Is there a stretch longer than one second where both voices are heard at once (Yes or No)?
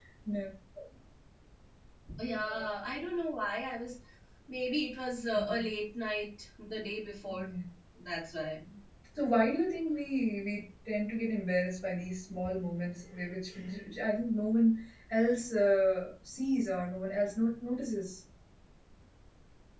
No